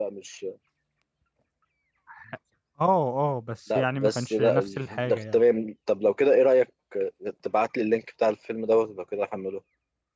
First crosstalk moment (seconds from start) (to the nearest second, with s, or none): 4 s